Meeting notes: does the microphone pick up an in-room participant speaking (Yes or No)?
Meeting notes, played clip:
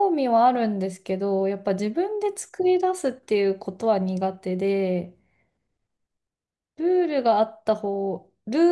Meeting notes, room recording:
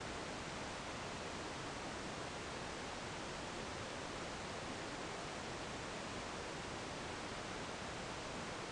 No